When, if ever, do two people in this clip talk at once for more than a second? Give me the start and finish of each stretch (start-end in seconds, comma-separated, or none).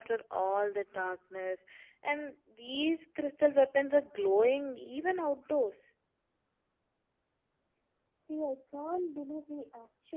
none